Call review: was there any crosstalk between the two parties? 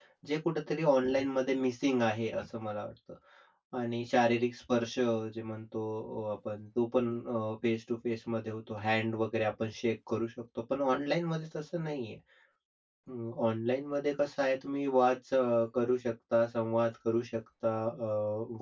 No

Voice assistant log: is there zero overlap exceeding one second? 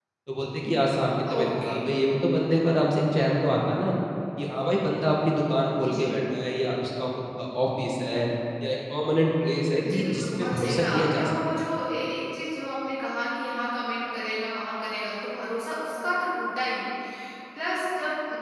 No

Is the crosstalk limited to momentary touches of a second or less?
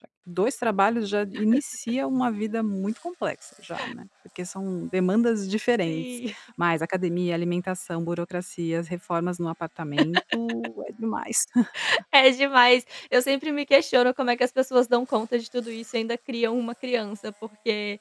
Yes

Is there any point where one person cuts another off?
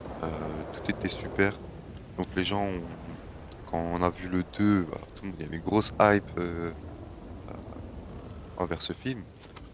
No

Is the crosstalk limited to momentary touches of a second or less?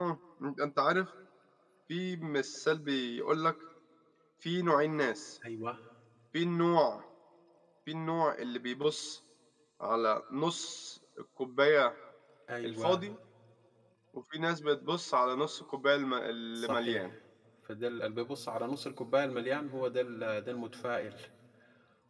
Yes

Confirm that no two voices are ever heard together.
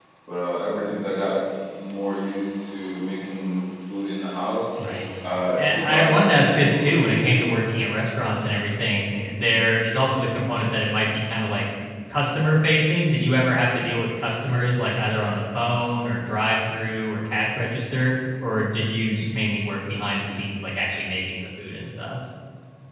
No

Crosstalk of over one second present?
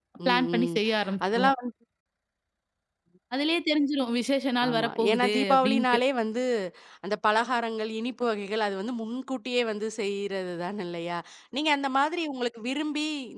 Yes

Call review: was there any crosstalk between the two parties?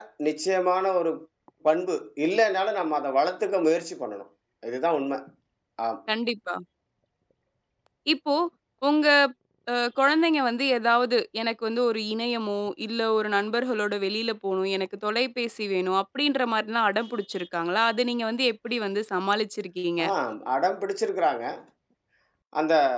No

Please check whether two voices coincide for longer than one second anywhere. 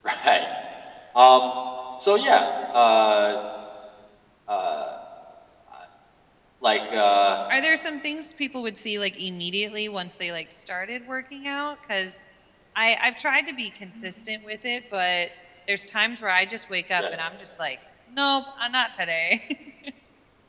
No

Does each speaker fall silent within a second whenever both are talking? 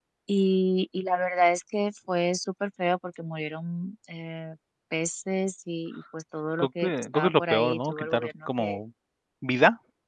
No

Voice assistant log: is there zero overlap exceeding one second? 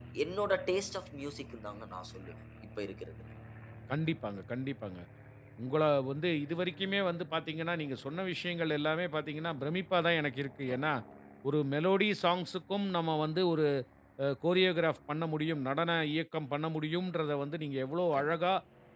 Yes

